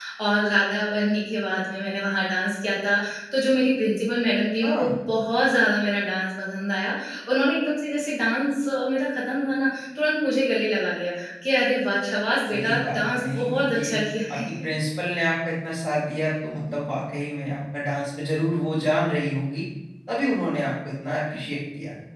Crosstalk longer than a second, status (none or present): present